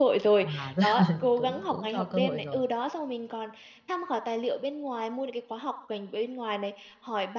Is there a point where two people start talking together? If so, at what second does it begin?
0.6 s

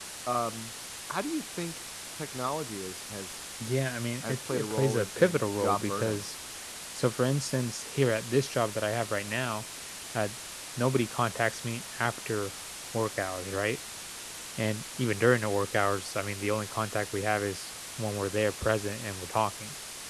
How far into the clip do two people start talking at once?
4.2 s

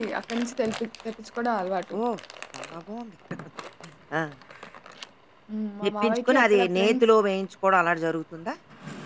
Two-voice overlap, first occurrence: 5.8 s

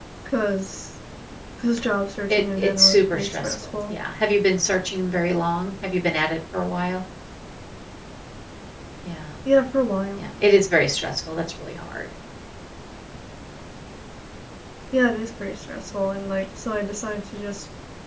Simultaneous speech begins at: 2.3 s

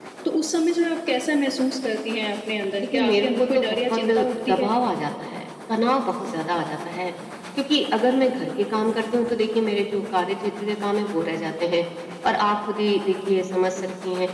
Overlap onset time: 2.8 s

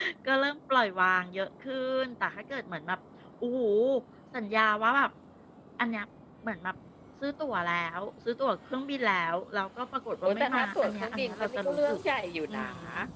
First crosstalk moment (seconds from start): 10.2 s

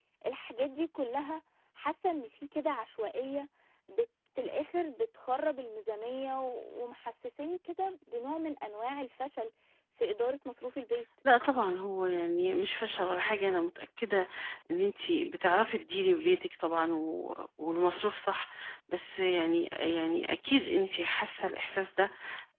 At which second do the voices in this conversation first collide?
none

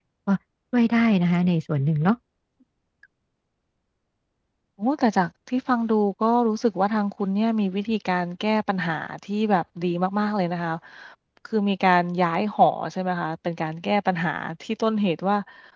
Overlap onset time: none

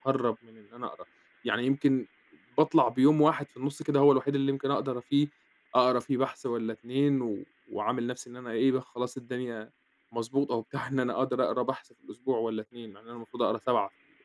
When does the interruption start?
none

